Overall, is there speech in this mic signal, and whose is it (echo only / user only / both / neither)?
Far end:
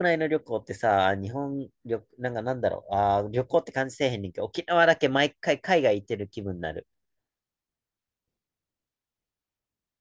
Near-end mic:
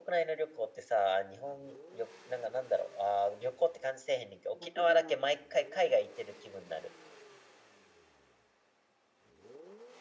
both